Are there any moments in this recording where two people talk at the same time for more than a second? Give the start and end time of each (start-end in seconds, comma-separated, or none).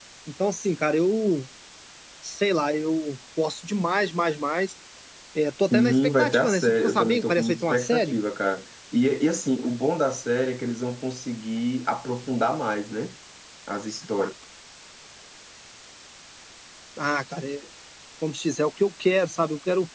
5.7-8.2